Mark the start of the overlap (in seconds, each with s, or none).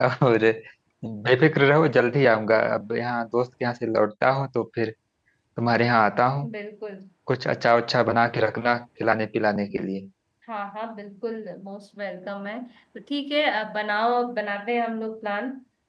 none